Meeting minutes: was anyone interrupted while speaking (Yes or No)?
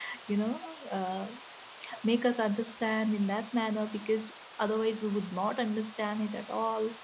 No